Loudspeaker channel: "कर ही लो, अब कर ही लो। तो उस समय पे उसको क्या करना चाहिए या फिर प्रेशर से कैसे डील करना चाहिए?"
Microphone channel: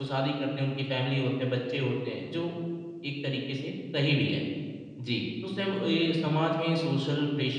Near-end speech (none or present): present